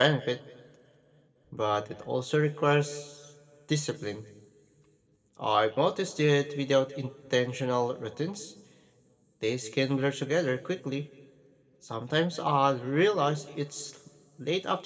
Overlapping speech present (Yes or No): No